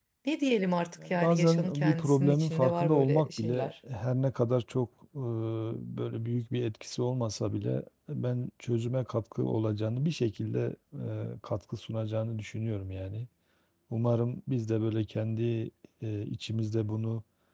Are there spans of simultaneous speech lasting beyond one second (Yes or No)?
Yes